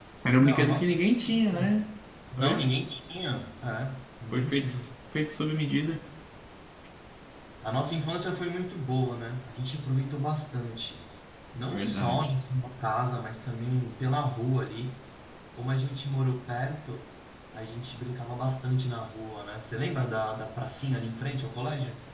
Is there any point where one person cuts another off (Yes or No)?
Yes